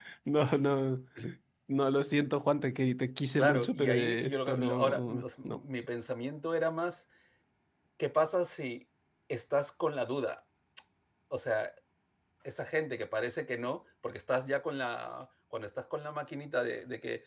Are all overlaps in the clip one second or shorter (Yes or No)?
No